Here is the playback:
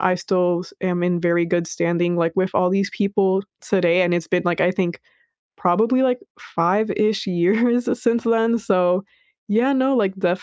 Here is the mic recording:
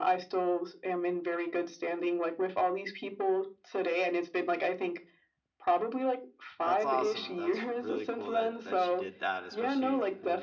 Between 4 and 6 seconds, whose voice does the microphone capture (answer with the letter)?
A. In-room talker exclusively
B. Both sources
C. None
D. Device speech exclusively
D